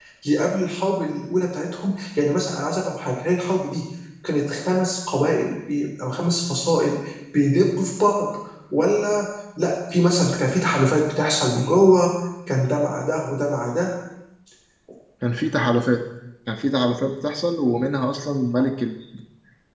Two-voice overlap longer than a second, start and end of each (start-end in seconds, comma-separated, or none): none